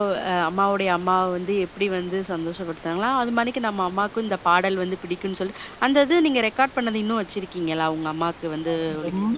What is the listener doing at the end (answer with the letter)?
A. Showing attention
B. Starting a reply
B